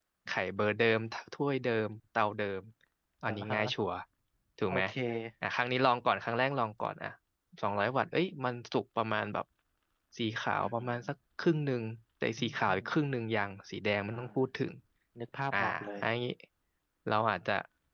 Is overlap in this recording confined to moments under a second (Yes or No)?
Yes